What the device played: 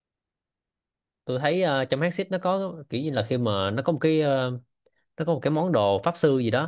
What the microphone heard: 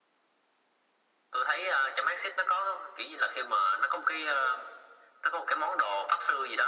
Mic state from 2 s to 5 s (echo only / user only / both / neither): echo only